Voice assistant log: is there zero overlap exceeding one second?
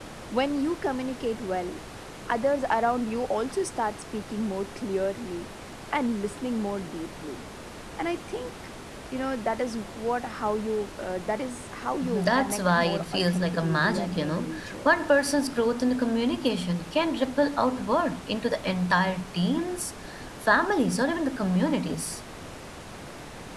No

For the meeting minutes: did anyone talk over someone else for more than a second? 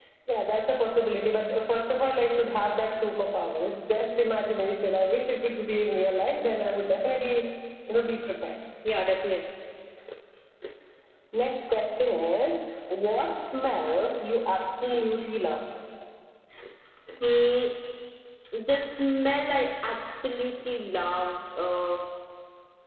No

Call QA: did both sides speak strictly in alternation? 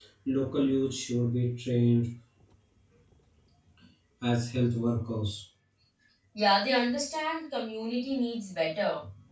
Yes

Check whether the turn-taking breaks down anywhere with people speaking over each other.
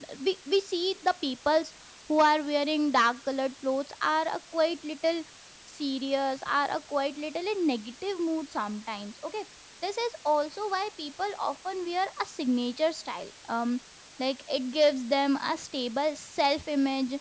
No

